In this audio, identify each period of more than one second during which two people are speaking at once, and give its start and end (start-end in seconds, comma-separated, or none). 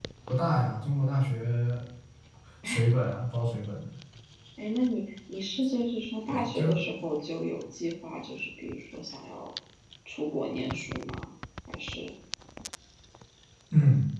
none